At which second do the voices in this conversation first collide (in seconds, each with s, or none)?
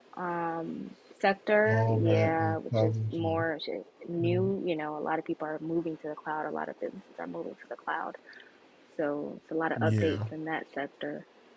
1.7 s